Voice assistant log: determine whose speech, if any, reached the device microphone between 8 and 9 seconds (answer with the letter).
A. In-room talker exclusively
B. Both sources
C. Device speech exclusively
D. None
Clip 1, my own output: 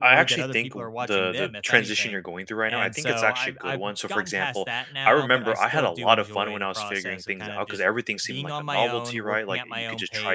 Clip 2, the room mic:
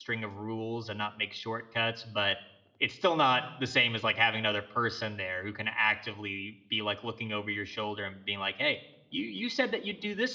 A